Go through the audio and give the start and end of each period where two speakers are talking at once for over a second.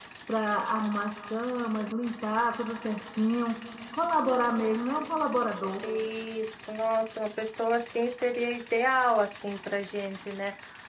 none

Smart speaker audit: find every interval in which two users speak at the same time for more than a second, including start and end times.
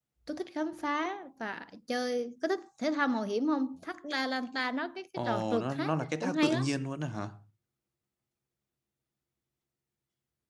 5.2-6.7

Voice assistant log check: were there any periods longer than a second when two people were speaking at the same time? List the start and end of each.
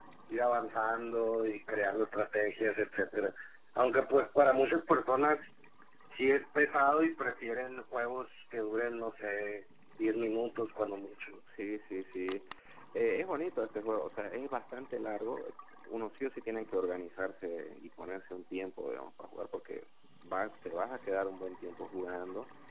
none

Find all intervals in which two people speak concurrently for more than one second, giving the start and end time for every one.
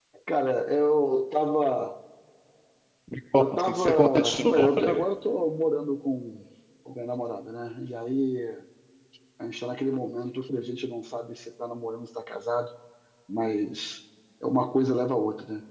3.4-4.8

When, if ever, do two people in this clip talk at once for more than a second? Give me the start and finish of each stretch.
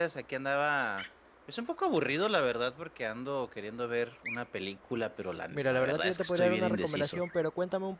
5.5-7.2

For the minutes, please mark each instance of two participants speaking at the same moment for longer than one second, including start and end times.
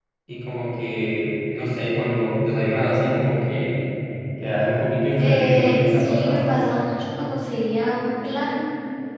5.2-6.5

